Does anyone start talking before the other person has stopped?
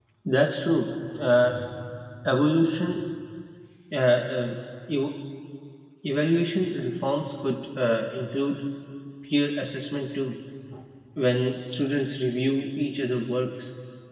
No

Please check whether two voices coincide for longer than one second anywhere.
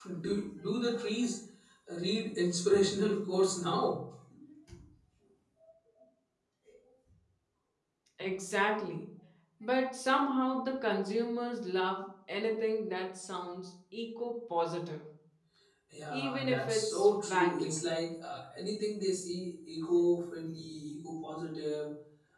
Yes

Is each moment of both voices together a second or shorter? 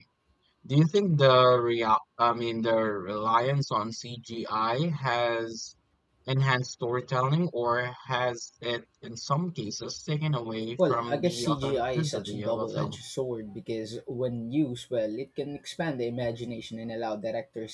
No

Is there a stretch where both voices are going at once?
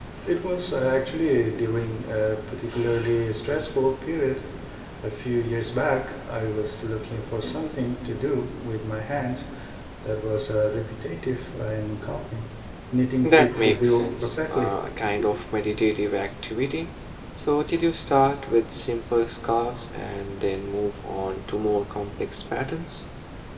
Yes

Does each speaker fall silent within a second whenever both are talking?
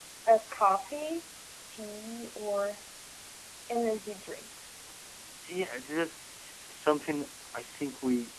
Yes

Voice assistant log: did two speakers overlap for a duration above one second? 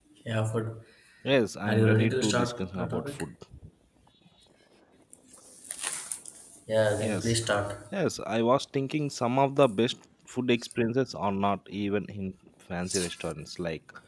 Yes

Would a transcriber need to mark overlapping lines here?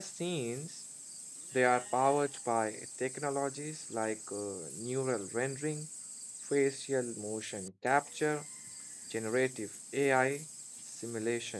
No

